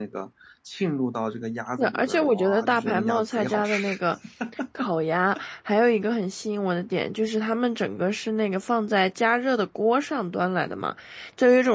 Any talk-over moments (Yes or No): Yes